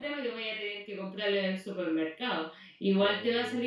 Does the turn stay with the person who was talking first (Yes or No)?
Yes